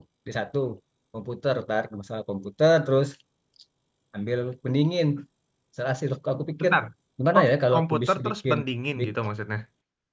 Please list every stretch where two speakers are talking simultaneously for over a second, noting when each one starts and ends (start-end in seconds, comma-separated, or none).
7.3-8.6